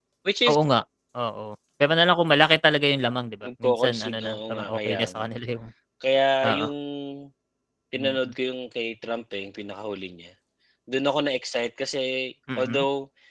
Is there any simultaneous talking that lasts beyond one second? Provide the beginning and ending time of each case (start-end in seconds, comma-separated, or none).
3.4-5.2